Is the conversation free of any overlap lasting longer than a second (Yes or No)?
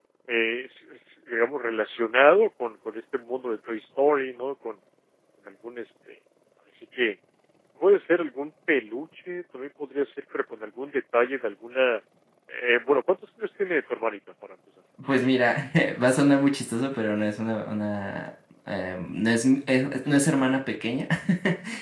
Yes